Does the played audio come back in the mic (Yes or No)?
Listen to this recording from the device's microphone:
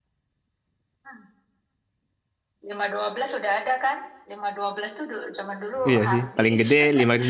Yes